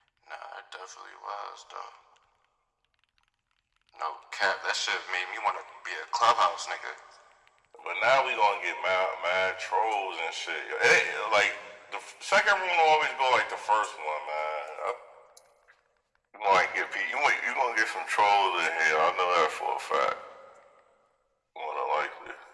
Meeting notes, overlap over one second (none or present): none